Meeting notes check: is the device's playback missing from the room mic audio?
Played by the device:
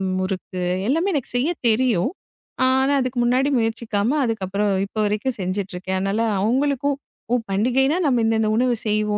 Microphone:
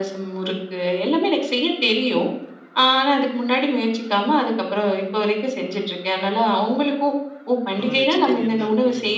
No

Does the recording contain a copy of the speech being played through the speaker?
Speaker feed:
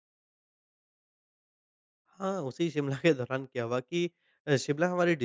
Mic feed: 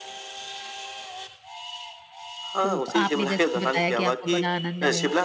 Yes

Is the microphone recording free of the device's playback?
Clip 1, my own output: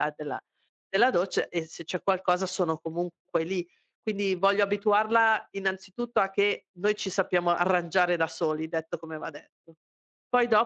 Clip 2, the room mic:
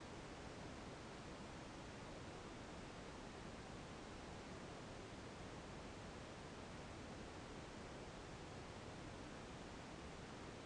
Yes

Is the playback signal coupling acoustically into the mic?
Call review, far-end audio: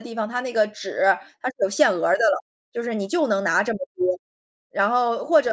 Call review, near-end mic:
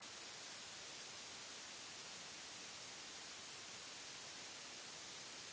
No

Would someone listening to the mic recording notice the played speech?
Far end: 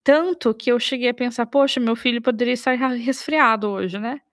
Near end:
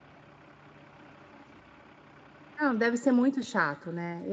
No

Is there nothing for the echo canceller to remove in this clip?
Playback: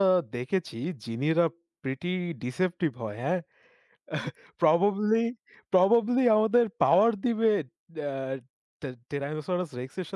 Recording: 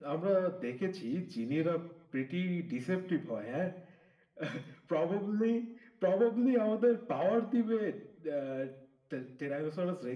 No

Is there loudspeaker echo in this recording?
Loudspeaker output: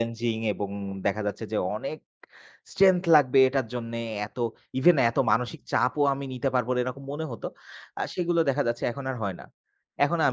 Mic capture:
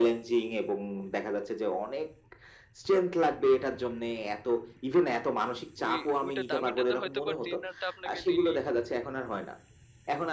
Yes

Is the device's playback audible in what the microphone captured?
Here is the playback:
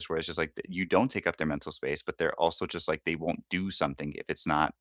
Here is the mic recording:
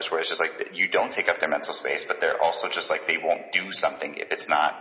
Yes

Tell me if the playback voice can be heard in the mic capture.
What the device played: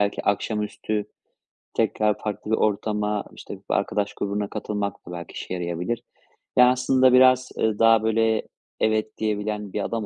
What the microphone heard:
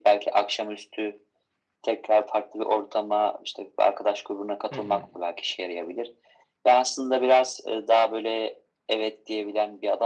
Yes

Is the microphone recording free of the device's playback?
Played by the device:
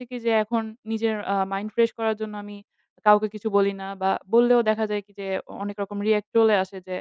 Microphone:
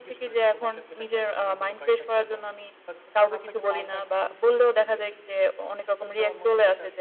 No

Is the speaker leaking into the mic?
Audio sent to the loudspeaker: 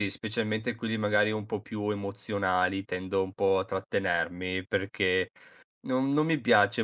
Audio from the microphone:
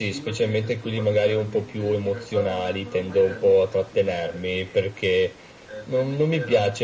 Yes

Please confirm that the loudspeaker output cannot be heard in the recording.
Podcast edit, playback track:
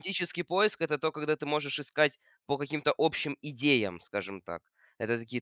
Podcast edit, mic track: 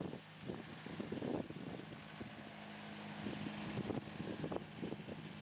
Yes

